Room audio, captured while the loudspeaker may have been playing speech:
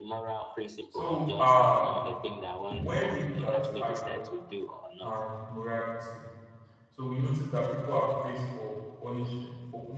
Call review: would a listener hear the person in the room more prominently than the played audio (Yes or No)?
Yes